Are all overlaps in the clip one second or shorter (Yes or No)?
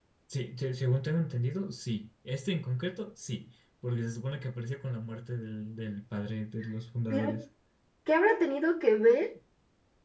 Yes